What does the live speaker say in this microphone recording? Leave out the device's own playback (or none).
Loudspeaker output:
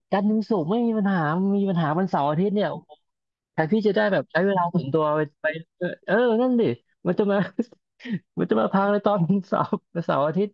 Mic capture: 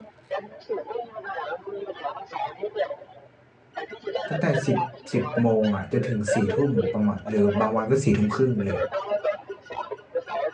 ตั้งแต่สิบสิบโมงอ่ะจนถึงสี่ทุ่มประมาณหรือบางวันก็สี่ทุ่มครึ่งเลย